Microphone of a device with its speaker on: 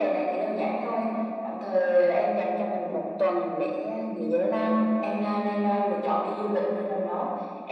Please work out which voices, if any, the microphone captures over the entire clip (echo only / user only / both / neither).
both